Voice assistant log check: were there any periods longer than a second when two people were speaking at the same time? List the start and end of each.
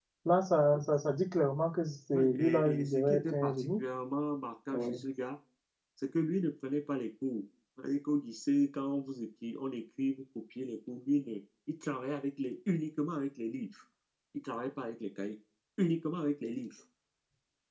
2.1-3.8

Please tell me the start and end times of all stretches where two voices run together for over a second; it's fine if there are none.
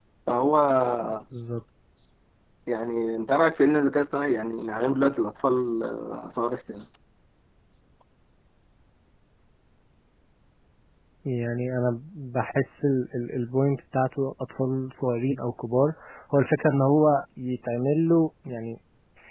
none

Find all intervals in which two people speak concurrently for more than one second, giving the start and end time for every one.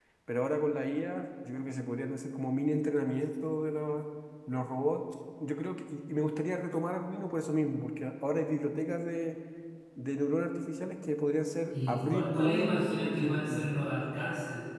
11.7-13.9

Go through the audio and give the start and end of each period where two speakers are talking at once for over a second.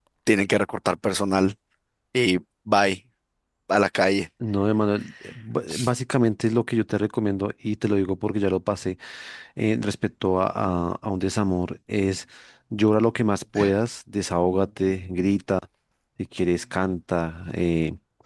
none

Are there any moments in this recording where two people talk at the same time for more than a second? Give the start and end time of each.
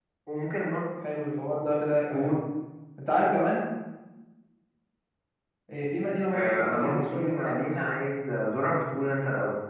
6.3-8.0

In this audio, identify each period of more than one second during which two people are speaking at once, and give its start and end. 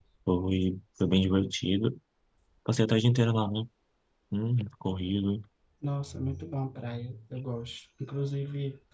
none

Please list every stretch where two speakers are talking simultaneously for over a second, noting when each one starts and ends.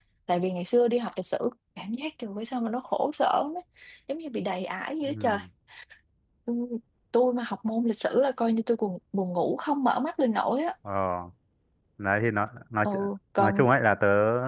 none

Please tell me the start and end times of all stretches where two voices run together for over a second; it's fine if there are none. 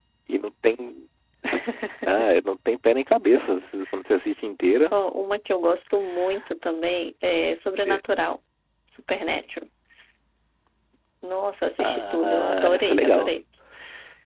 11.8-13.3

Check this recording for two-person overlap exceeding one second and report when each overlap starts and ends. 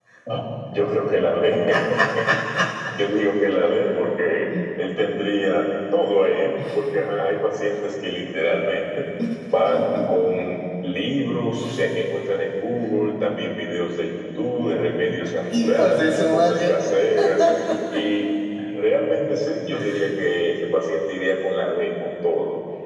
15.5-16.7

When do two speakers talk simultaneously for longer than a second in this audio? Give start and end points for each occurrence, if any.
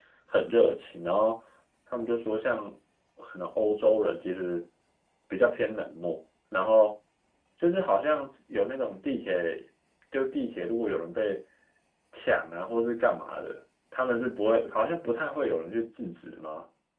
none

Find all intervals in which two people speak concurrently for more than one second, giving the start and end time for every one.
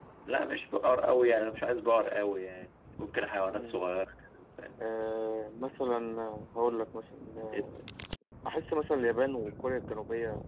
none

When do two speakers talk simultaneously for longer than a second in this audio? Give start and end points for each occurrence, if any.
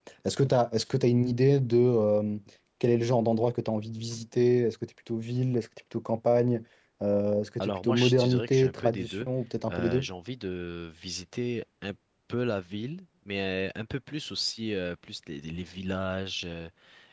7.6-9.3

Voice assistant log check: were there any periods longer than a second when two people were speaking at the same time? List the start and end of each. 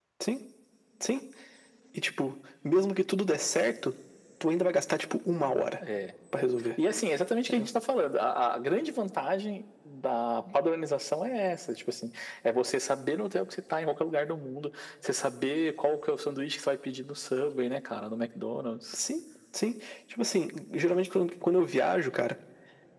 none

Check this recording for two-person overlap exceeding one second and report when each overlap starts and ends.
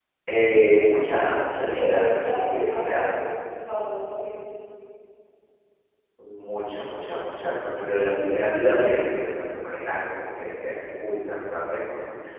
1.6-3.1

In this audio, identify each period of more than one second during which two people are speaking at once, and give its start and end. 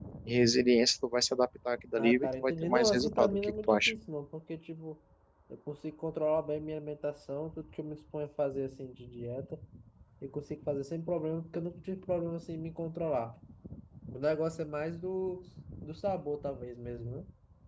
2.0-3.9

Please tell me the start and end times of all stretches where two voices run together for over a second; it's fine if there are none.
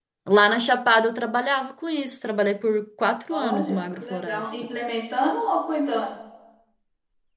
3.3-4.5

